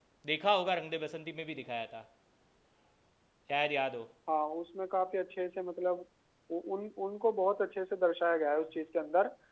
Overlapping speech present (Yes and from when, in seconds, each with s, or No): No